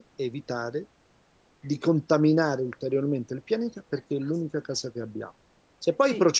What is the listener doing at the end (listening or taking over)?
listening